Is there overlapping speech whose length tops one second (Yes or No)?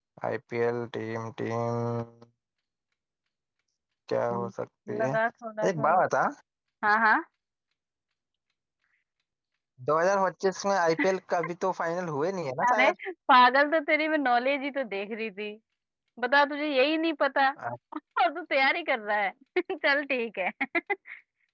No